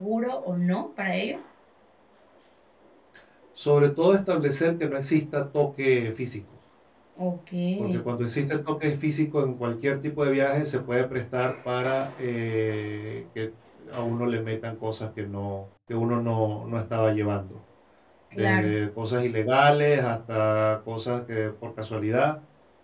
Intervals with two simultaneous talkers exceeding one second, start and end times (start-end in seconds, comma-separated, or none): none